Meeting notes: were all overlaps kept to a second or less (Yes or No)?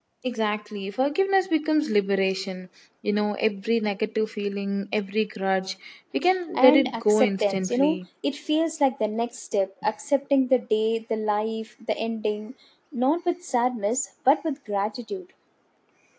No